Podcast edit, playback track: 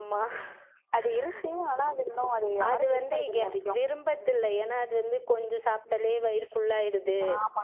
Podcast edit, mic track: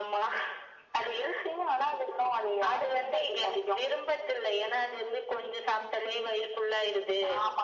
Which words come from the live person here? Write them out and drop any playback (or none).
none